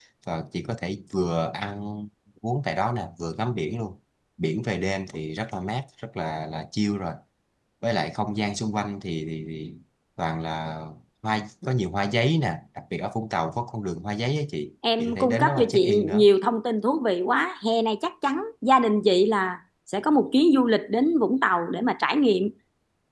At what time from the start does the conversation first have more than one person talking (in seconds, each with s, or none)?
14.8 s